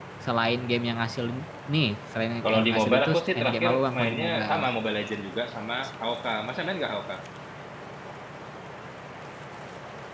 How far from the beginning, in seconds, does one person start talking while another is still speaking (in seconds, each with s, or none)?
2.4 s